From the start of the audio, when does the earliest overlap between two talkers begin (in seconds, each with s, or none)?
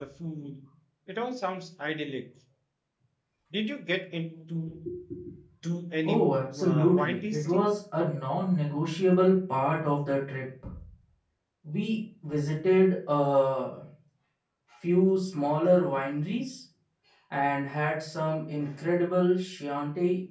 6.0 s